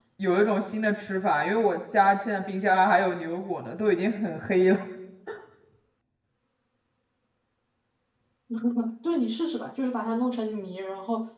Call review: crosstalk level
none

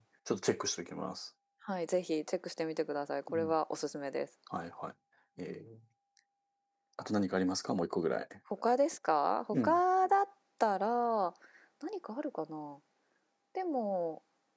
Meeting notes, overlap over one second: none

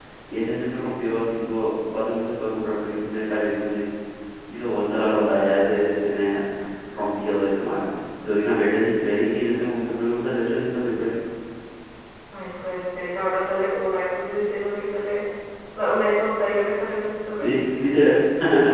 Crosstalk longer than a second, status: none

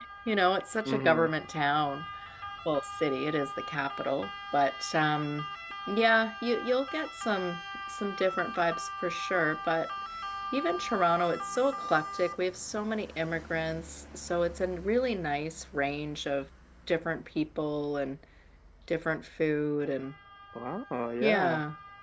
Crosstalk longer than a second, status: none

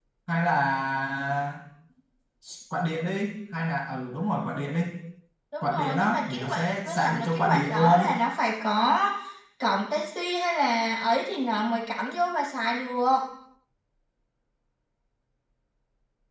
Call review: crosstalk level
present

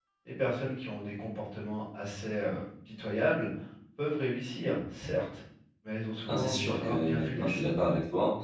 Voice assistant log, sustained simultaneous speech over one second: present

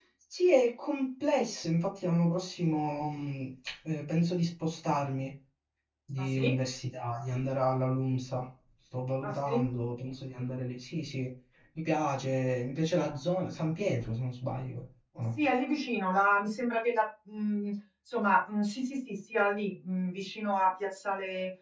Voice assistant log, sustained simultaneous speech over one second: none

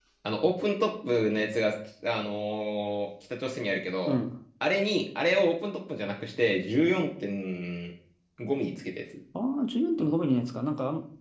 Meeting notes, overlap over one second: none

